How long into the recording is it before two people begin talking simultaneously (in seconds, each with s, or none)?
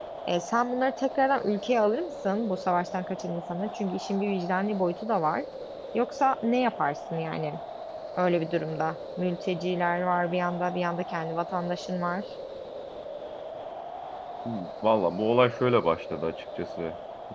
none